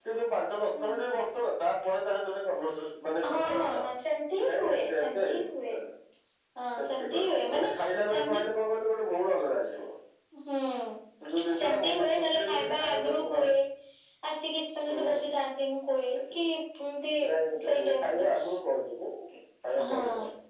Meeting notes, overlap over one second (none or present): present